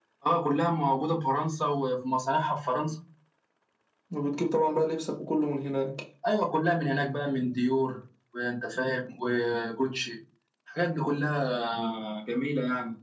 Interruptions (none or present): none